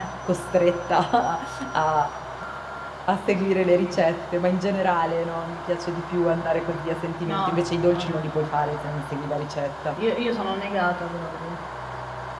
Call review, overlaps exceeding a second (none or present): present